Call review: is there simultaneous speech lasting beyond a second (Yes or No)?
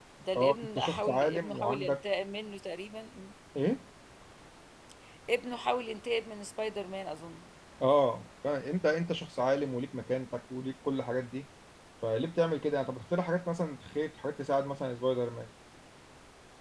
Yes